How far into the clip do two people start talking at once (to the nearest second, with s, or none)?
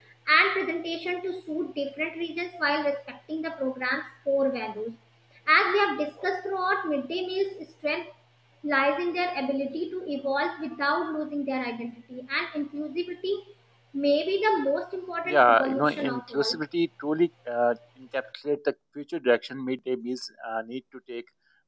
15 s